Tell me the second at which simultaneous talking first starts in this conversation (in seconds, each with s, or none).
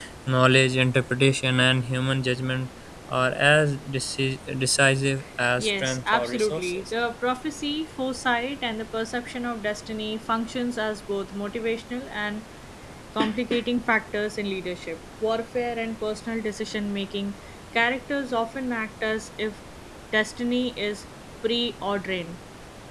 5.6 s